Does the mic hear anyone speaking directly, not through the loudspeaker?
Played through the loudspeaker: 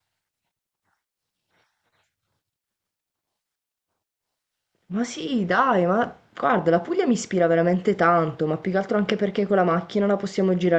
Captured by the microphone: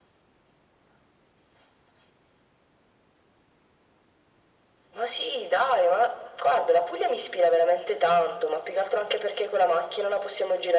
No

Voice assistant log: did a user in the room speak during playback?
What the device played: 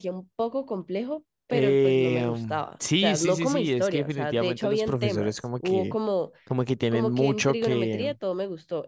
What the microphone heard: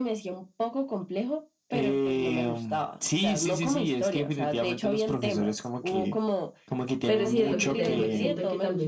Yes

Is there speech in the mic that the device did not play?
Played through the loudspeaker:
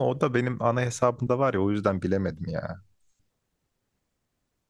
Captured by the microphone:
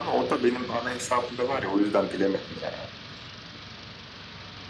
No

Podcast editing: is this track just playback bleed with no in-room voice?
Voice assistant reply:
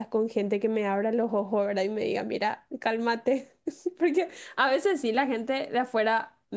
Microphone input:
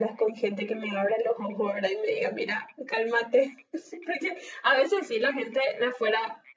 Yes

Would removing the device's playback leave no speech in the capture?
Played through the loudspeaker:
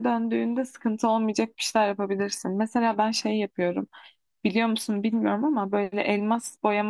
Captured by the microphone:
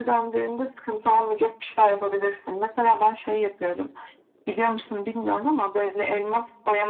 Yes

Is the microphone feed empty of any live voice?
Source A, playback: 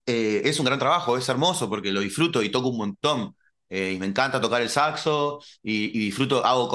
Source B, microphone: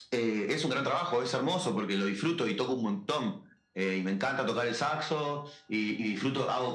Yes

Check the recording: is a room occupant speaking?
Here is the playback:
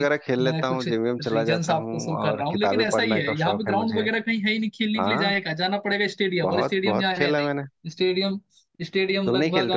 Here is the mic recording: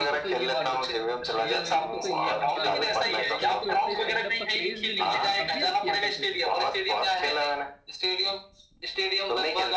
Yes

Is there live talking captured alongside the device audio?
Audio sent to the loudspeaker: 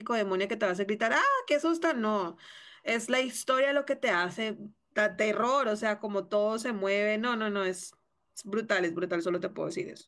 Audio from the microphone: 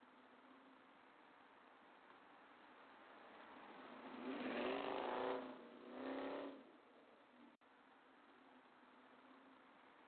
No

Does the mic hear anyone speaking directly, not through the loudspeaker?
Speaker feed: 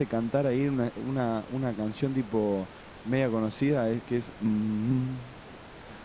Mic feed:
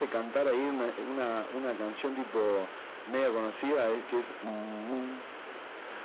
Yes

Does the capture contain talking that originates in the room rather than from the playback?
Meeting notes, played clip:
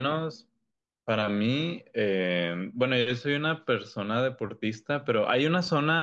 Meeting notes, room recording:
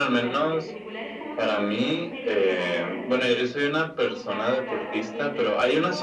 Yes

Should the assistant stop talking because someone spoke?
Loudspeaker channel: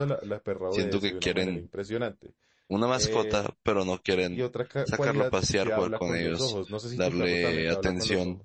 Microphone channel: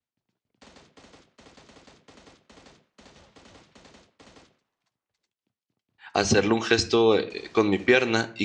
Yes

